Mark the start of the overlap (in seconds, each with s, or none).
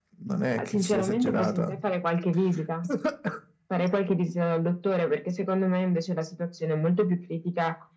0.5 s